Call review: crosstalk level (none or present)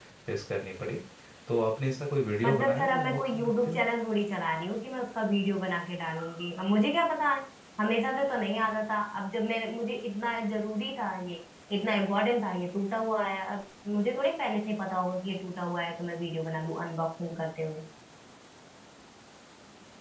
present